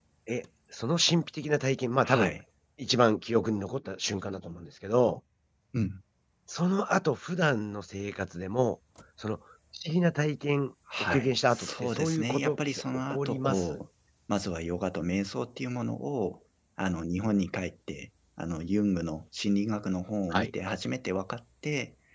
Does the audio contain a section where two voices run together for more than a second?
Yes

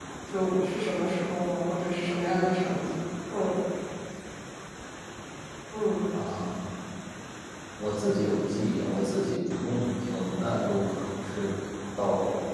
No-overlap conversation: Yes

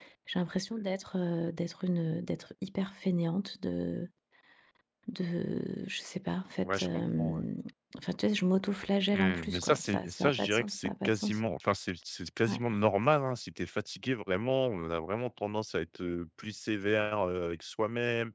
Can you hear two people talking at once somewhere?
Yes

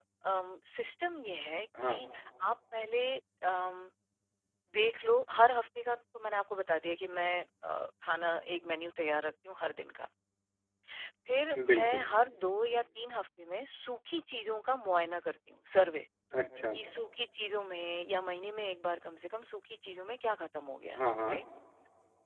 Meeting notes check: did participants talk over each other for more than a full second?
No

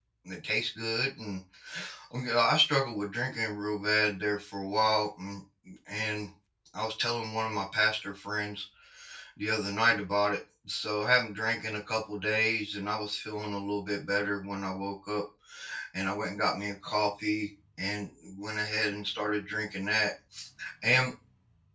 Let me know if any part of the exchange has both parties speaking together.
No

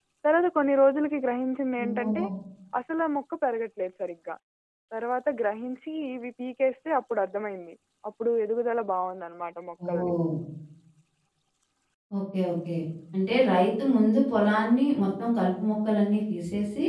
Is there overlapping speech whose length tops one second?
No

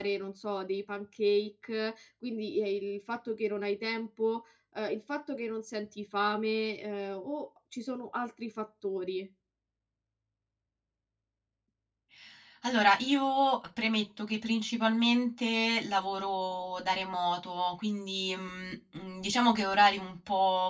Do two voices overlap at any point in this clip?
No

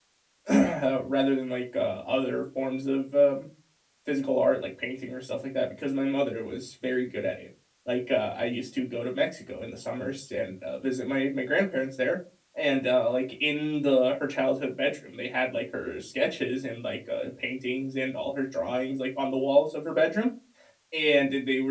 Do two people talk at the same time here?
No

